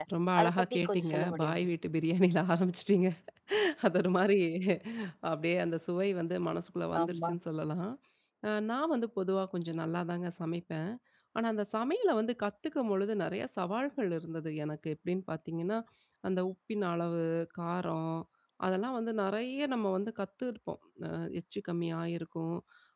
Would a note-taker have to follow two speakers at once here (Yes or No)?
Yes